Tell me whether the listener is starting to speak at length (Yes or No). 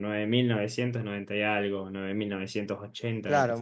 Yes